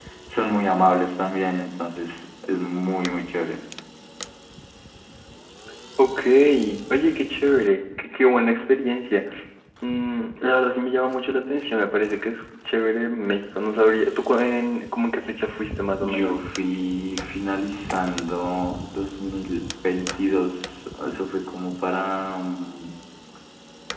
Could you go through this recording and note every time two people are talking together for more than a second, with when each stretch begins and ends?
none

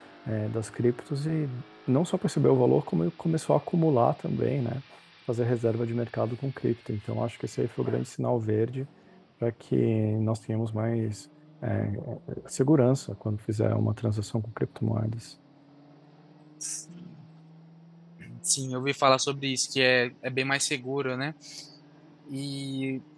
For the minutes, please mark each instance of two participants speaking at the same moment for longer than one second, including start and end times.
none

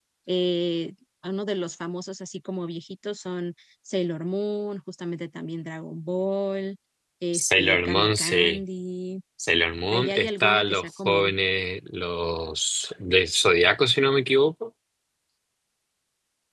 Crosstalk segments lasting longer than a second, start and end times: 7.3-8.6, 9.9-11.3

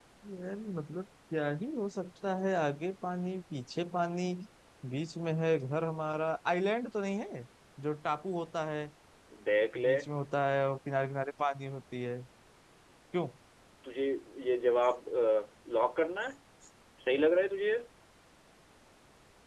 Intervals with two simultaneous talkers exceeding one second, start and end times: none

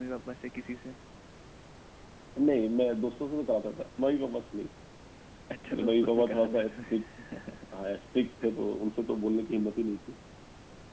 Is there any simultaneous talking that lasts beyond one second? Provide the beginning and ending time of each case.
5.7-7.0

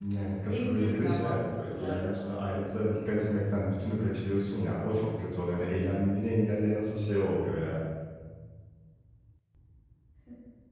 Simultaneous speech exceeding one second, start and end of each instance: 0.5-2.1

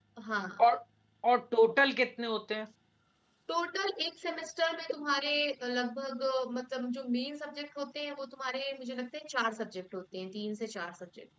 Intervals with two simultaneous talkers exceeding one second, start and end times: none

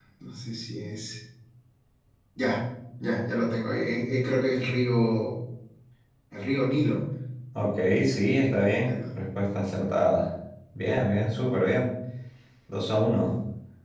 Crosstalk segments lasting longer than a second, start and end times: none

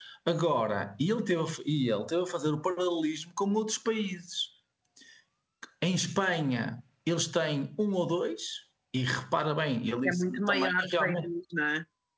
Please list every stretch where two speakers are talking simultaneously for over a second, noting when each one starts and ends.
10.1-11.3

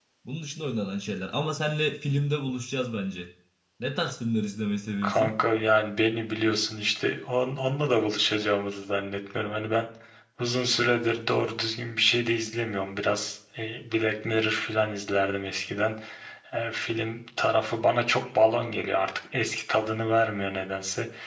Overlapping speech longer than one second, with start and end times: none

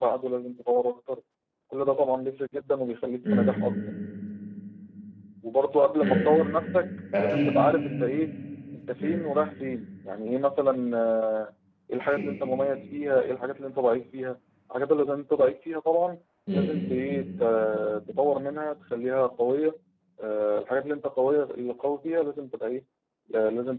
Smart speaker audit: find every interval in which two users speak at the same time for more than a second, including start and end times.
none

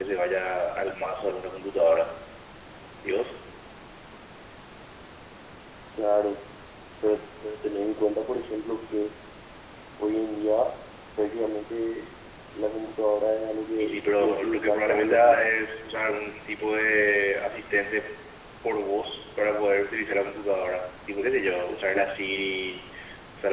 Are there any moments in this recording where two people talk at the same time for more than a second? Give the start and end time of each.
13.8-15.4

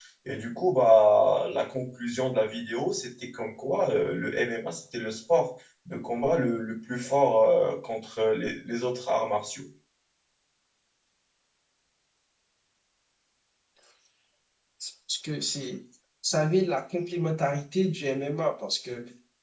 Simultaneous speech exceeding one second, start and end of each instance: none

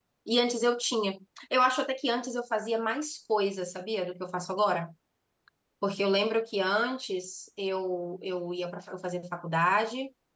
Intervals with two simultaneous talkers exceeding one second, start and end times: none

